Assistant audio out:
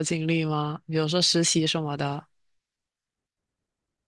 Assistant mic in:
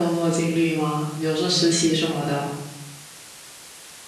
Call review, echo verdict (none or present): present